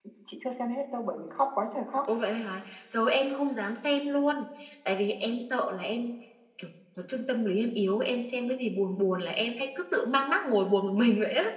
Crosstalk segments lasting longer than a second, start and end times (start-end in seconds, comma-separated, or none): none